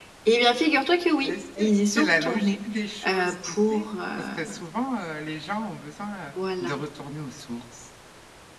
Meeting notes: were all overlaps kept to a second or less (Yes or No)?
No